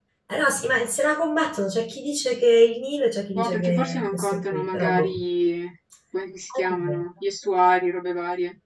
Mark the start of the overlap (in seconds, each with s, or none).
3.3 s